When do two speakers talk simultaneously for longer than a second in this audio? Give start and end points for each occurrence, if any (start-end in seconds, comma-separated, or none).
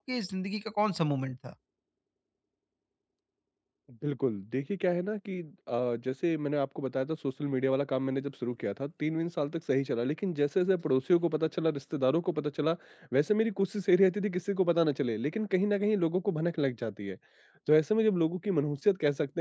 none